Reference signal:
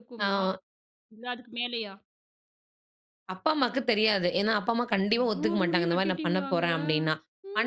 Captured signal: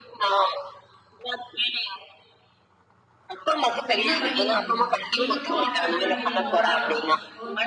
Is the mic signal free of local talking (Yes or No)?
No